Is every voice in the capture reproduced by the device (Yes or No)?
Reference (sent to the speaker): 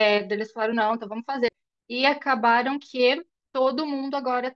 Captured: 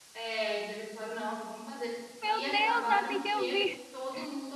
No